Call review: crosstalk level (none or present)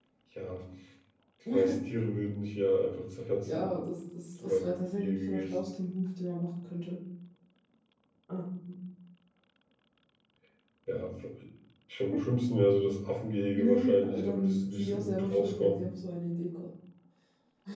present